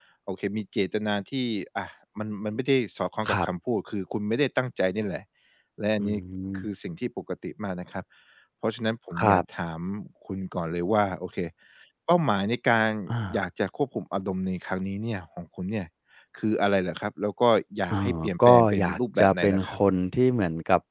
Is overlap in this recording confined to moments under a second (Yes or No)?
No